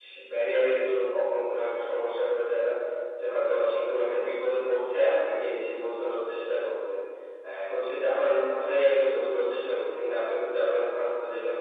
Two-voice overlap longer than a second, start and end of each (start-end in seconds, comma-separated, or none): none